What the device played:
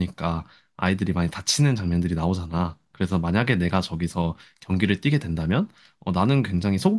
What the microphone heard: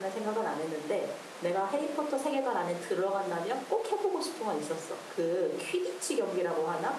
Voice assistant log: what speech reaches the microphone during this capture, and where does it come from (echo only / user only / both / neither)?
user only